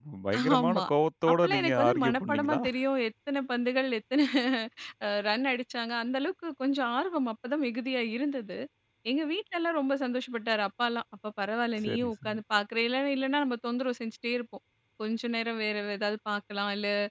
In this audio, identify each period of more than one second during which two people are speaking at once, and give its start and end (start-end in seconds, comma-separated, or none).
1.3-2.6